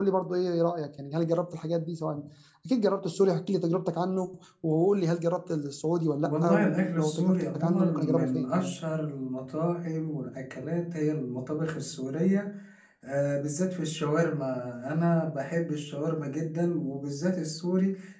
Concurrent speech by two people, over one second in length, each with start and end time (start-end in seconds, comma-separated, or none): 6.2-8.8